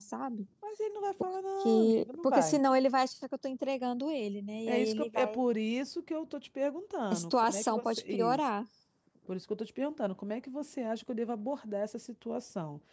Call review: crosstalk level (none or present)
present